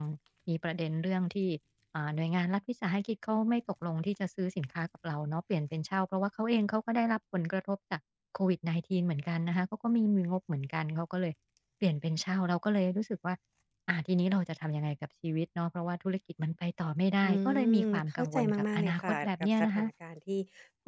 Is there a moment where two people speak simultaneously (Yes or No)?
Yes